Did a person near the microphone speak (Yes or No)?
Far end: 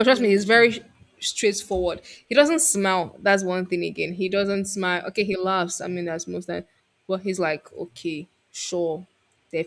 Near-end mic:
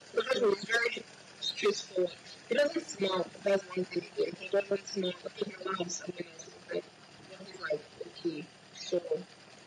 No